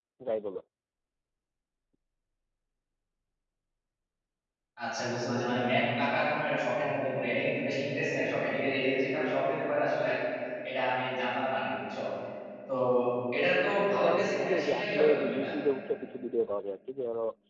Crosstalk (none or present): present